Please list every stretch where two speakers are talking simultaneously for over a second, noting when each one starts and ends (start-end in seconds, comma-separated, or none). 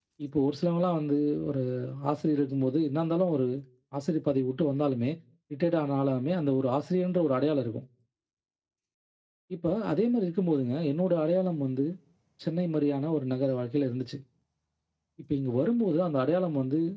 none